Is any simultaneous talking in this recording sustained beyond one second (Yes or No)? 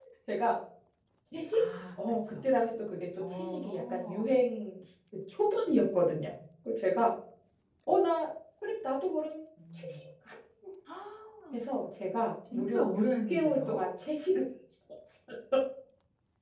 Yes